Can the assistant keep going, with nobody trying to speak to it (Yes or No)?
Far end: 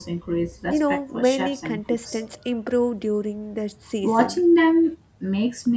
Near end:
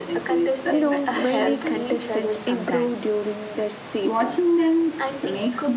No